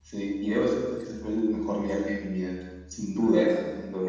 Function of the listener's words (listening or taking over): taking over